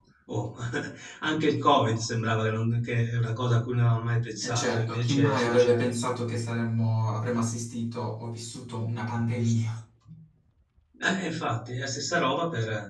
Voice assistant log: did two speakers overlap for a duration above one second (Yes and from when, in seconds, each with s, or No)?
Yes, from 4.4 s